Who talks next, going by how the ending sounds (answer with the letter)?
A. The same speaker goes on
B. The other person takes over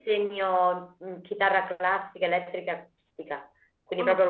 A